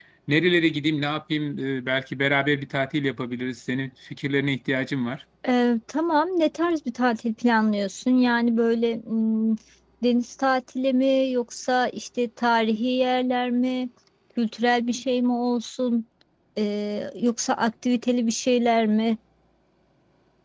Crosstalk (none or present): none